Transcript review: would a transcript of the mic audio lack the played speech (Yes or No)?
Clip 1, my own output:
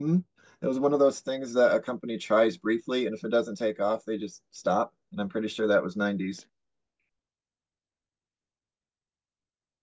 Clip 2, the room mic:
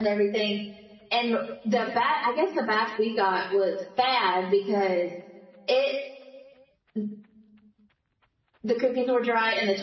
Yes